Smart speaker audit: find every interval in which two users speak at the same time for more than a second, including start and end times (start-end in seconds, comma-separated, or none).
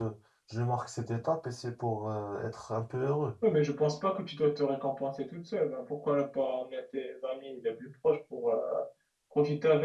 none